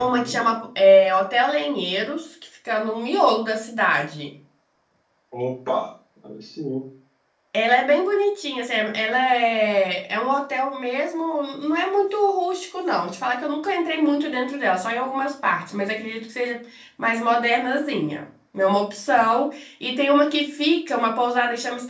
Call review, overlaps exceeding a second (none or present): none